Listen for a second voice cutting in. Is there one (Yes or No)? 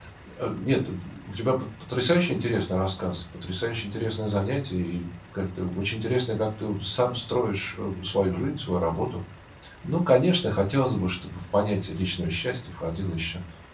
No